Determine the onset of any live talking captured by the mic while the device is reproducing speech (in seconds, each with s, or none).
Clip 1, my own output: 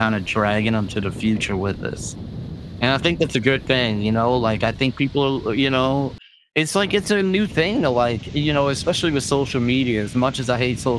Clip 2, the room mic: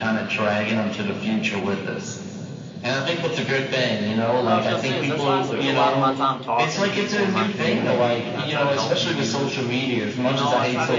4.4 s